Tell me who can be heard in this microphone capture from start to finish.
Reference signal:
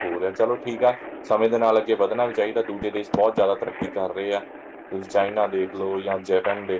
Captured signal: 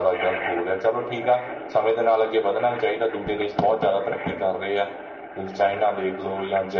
echo only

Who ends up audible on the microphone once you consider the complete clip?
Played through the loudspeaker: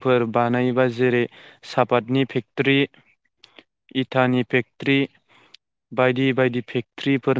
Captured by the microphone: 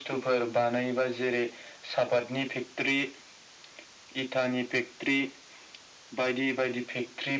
echo only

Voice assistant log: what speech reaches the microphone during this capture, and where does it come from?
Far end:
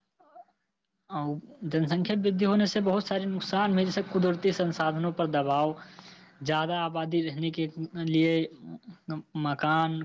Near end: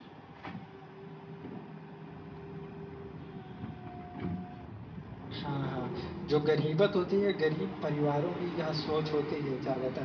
user only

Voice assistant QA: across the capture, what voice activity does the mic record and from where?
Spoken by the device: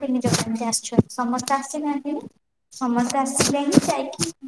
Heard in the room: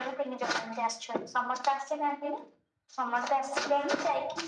echo only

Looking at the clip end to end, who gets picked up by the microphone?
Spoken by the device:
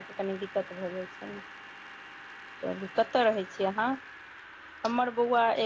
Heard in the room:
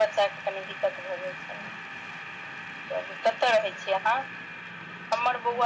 echo only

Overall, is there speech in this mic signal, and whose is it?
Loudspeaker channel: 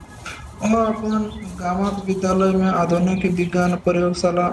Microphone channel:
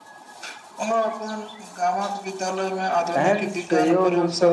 both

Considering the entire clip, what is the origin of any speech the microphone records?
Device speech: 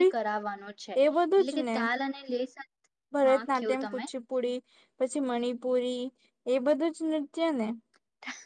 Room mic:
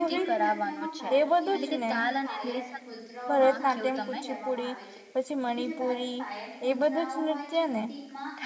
both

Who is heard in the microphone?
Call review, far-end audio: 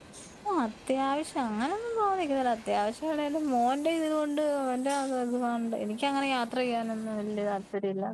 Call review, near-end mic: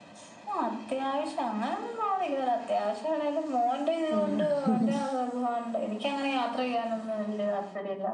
both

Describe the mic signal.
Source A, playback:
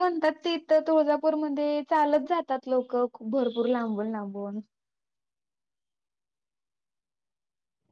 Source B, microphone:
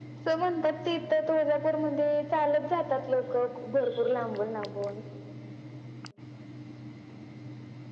echo only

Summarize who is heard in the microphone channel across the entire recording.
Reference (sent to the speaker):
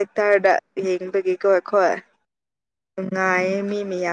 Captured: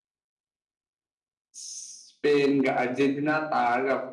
user only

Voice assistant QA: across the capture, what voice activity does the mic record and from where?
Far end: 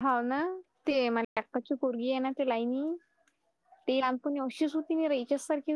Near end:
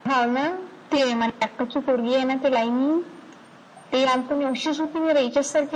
echo only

